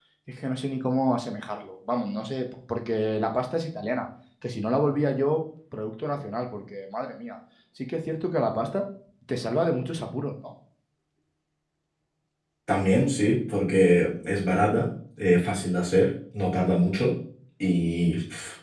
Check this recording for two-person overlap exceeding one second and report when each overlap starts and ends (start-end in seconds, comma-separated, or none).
none